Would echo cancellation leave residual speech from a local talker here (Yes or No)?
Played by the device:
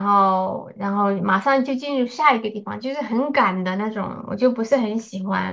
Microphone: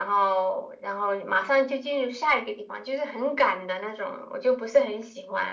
No